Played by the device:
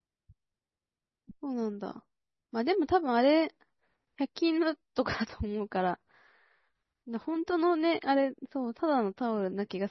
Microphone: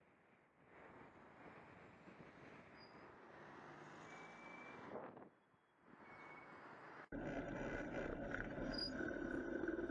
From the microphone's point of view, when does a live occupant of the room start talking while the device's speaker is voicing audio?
none

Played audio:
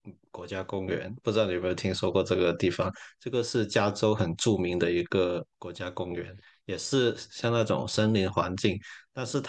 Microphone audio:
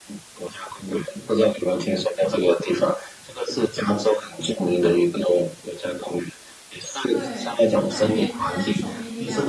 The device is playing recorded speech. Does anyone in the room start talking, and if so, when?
7.1 s

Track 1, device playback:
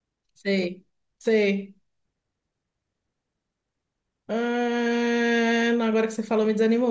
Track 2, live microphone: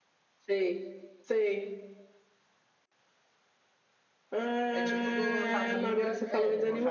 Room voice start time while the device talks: 4.7 s

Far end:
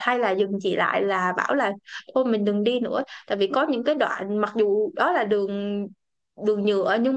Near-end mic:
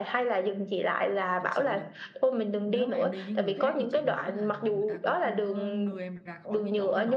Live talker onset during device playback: 1.4 s

